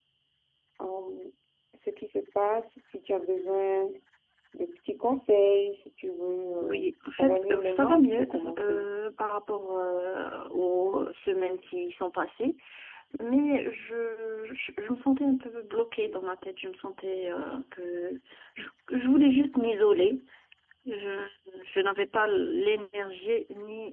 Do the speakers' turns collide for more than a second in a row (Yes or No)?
Yes